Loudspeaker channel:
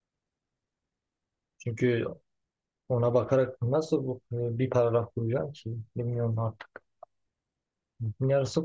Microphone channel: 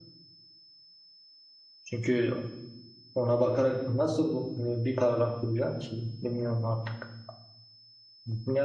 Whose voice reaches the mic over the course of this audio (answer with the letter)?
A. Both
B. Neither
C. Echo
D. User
C